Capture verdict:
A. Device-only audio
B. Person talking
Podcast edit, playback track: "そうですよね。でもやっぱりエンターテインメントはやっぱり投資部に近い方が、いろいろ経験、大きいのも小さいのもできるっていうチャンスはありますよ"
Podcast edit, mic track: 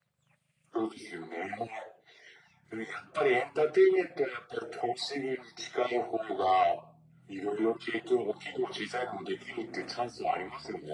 A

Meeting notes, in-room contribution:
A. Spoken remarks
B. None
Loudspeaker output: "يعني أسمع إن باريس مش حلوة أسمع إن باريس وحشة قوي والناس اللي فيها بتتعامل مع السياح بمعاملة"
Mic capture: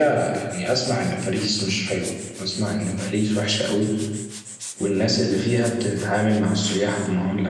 B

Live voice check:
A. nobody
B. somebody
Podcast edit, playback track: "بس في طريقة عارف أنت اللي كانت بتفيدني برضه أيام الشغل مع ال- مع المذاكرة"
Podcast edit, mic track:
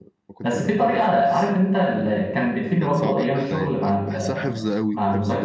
B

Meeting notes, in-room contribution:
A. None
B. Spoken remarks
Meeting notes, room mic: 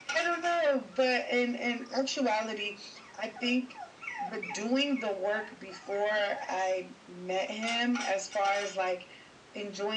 A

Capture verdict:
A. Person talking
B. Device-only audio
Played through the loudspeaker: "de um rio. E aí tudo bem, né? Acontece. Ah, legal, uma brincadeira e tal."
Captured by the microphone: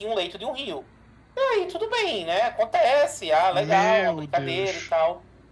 A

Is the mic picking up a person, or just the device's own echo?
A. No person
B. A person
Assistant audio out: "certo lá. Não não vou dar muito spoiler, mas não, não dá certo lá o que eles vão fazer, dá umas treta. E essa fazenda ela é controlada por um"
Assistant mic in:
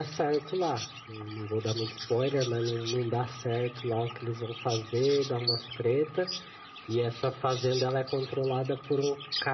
A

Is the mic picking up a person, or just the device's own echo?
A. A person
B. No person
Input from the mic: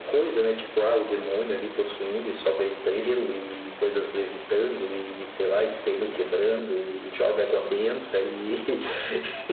B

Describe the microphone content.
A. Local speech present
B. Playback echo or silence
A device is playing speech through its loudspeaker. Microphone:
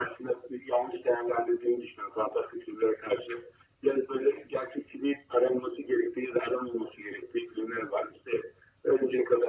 B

